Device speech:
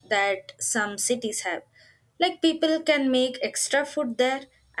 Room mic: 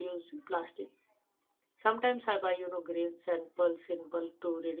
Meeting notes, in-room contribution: present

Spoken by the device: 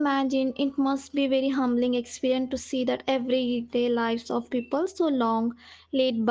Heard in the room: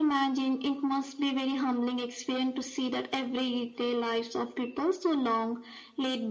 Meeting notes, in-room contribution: none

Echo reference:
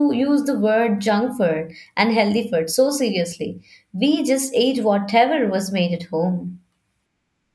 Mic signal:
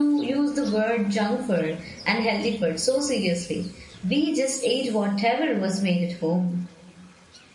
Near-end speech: none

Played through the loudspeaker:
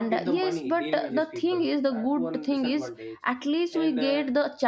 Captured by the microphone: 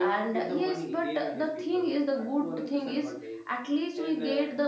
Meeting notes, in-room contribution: none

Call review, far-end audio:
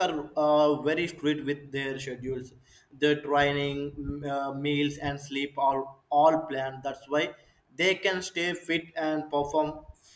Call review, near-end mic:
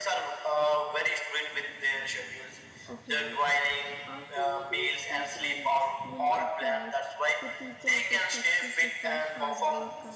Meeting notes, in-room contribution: present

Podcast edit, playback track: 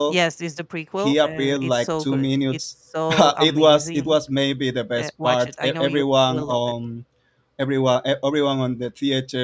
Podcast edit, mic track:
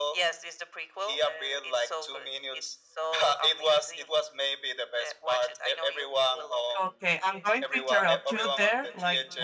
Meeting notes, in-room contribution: present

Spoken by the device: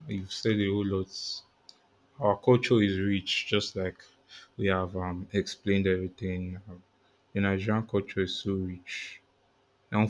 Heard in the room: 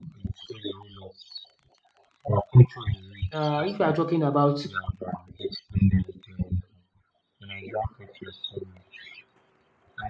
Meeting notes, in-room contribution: present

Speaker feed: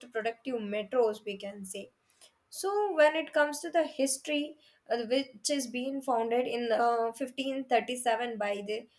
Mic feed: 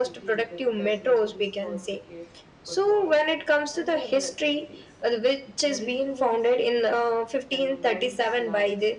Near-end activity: present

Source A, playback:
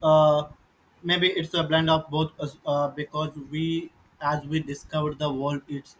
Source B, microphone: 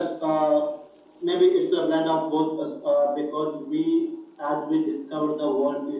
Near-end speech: none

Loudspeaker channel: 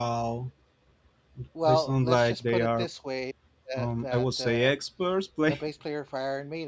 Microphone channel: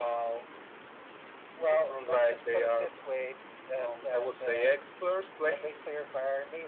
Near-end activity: none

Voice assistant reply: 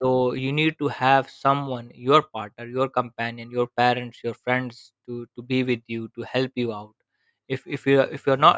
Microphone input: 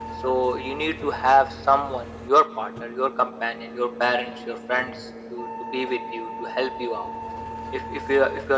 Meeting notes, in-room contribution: none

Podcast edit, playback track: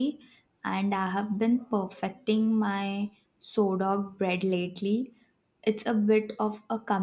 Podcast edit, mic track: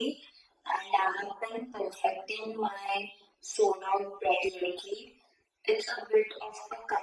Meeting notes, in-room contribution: none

